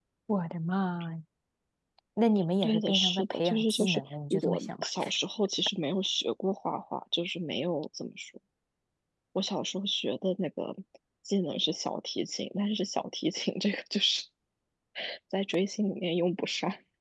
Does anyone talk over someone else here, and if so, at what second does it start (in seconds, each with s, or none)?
2.6 s